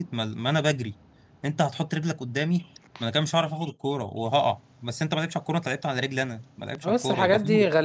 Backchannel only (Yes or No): No